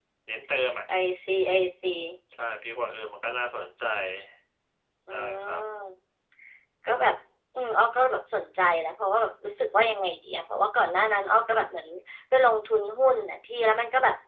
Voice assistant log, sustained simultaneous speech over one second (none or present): none